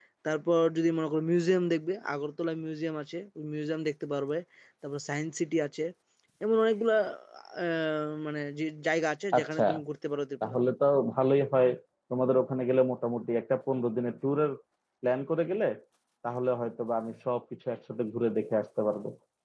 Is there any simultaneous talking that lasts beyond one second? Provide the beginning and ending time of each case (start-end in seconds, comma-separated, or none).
none